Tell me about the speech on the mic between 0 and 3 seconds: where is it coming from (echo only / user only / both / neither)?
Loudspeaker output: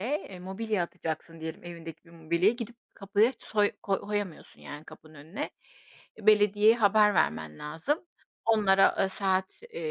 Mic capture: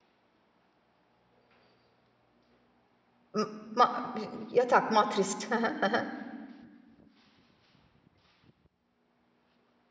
neither